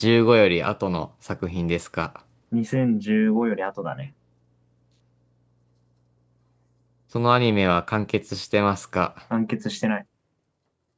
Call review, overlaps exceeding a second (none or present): none